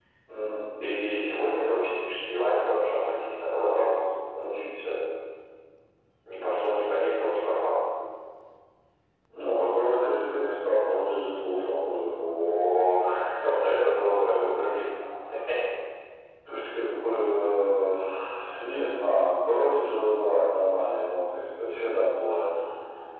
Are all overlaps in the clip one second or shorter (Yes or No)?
Yes